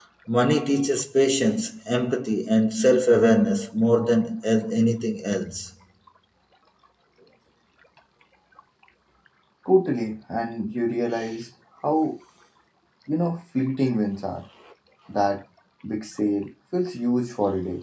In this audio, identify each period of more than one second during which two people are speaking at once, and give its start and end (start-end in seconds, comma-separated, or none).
none